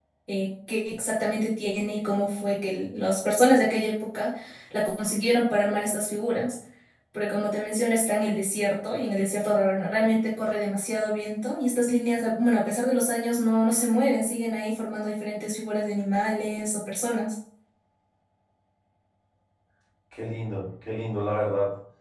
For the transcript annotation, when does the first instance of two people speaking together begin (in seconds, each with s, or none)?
none